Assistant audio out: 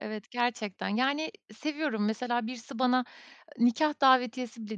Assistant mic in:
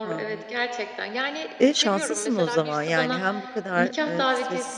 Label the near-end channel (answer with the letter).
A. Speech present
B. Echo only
A